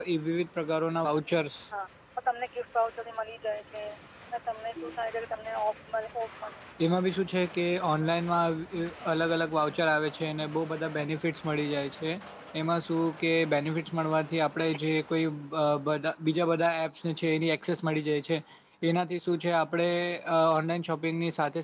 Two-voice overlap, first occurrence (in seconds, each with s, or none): none